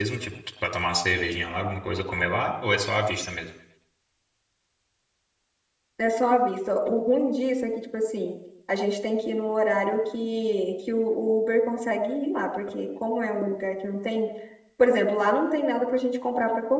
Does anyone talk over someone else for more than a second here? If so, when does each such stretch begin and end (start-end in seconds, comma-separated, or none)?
none